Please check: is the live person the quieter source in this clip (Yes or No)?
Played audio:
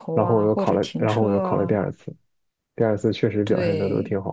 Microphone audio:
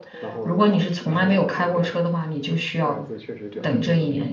No